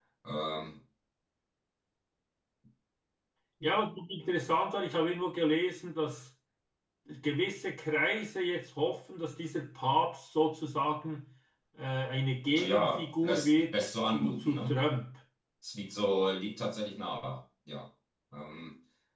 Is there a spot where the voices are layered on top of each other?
Yes, from 12.6 s

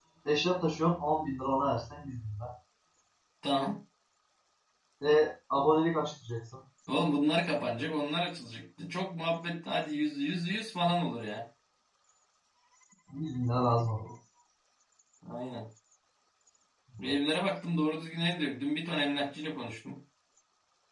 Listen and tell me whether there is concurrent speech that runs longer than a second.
No

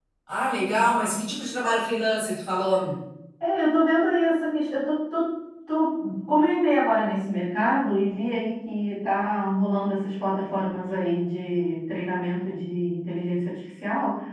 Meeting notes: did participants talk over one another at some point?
No

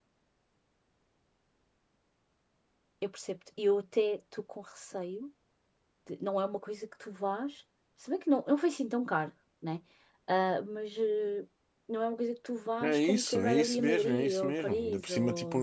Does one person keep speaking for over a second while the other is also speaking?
Yes, from 12.8 s

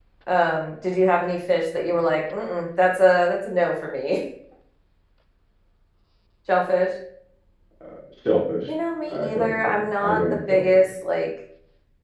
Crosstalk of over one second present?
Yes, from 9.1 s

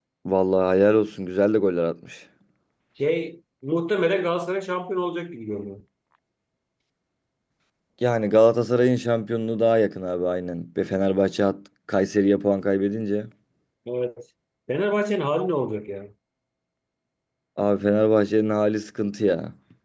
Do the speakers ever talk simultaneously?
No

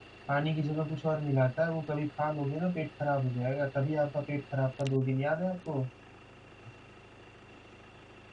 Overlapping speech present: No

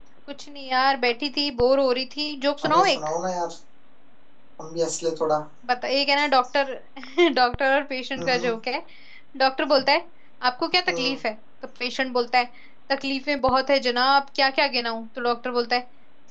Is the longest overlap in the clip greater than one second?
No

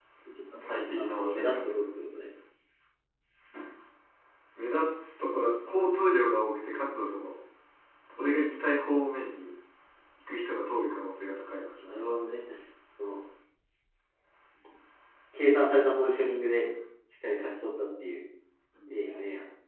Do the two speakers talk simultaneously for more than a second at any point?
Yes, from 0.6 s

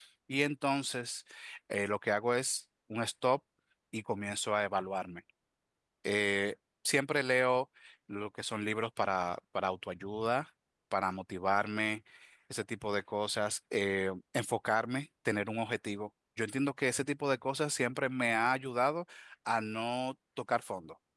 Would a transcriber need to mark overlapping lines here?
No

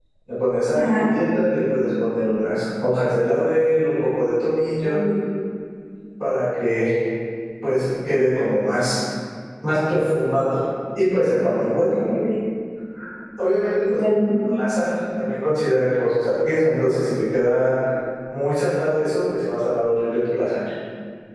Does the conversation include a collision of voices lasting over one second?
No

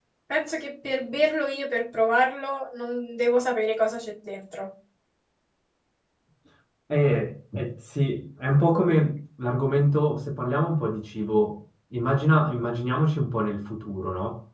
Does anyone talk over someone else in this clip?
No

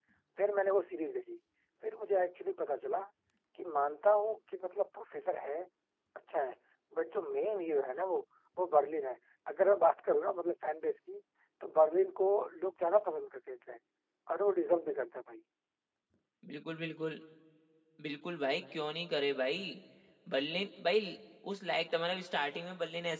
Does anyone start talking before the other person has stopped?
No

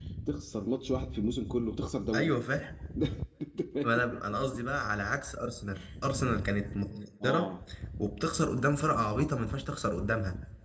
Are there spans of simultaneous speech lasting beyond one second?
No

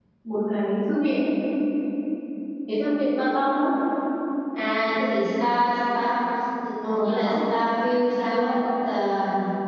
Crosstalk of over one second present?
No

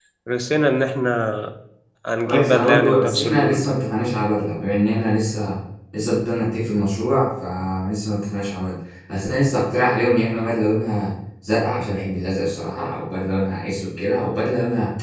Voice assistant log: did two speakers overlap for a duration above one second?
Yes, from 2.2 s

